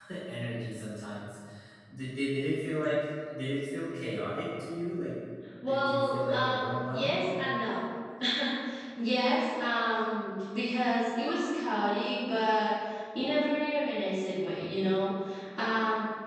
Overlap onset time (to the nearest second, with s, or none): 6 s